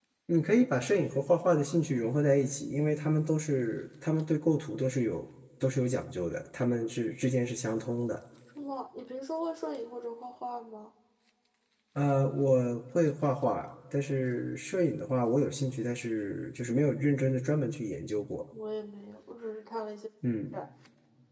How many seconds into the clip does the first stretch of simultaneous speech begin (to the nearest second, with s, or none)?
none